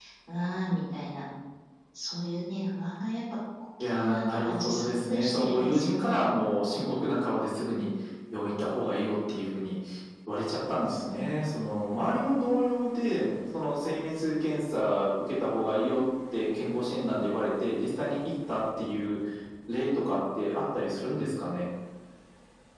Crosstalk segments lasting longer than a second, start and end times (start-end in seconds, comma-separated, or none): 3.8-6.3